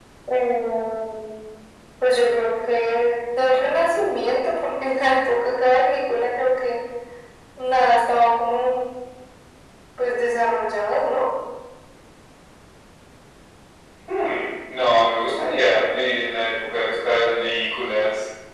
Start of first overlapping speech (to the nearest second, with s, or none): none